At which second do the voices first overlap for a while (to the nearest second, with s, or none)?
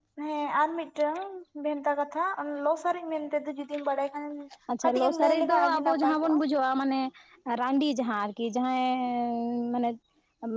5 s